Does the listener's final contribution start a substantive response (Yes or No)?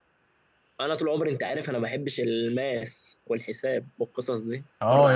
Yes